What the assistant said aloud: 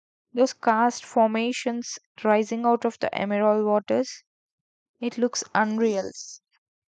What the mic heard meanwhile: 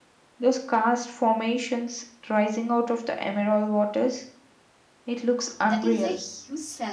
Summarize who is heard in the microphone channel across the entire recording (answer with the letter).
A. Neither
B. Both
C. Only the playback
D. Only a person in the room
B